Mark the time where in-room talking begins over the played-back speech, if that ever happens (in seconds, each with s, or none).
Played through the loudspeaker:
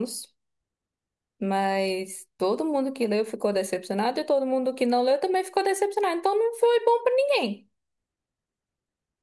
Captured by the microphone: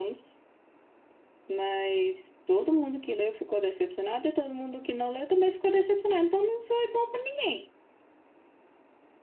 none